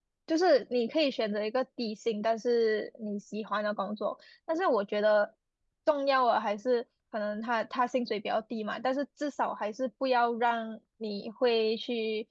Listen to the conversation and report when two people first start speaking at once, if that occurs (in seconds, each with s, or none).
none